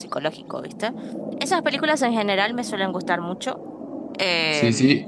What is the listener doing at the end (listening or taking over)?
taking over